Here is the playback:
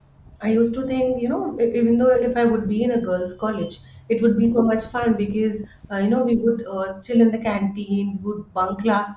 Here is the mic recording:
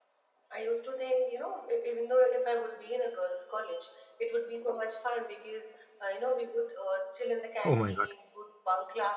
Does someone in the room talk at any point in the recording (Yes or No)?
Yes